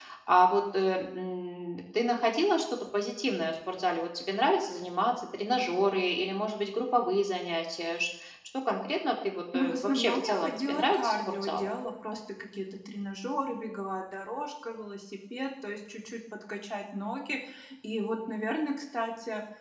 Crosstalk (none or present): present